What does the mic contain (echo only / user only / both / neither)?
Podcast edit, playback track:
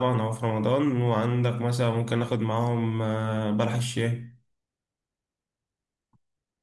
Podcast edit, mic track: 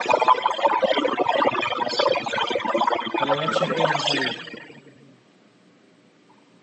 both